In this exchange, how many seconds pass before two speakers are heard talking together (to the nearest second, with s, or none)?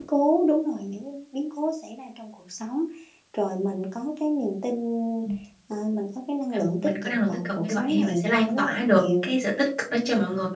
7 s